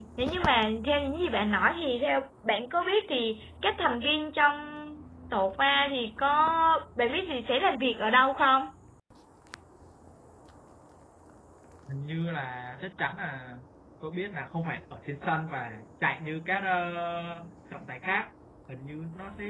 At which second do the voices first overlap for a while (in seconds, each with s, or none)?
none